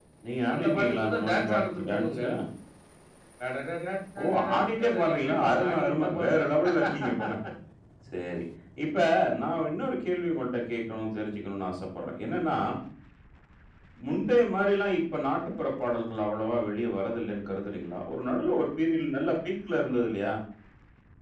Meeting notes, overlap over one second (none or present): present